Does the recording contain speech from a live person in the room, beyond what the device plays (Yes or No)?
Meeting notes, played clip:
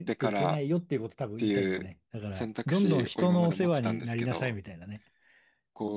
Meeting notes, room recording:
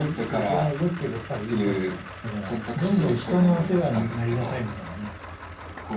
No